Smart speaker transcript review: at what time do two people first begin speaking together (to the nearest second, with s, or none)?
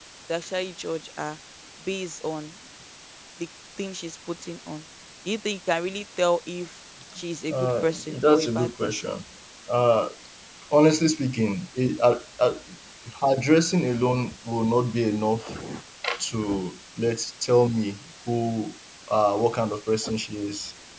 7 s